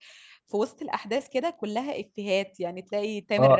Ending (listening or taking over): taking over